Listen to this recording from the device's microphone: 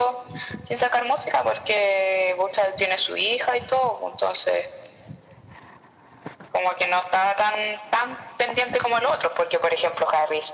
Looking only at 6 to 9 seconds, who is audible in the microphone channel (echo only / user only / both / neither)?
echo only